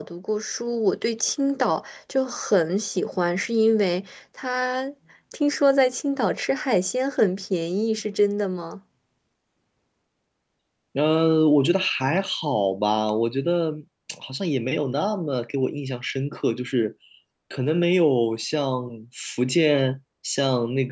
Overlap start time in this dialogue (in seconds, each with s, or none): none